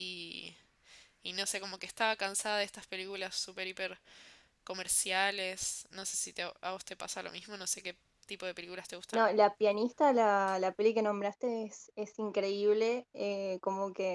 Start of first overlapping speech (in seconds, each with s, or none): none